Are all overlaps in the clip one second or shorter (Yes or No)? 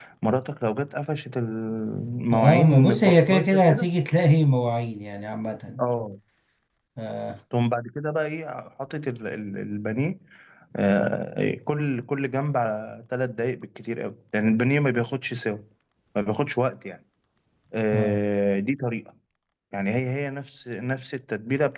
No